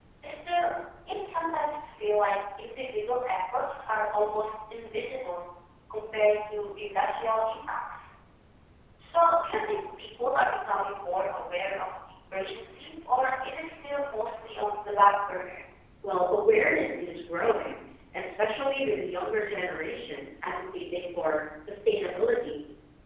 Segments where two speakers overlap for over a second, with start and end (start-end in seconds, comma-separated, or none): none